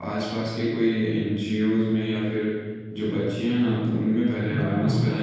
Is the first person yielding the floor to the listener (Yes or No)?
No